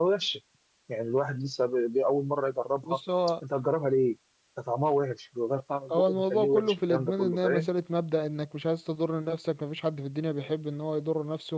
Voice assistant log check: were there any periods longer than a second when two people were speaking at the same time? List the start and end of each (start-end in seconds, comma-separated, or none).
5.9-7.7